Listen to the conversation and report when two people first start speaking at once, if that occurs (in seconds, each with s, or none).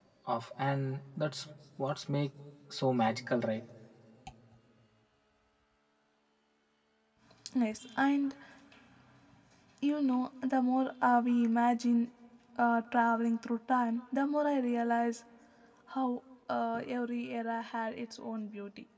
none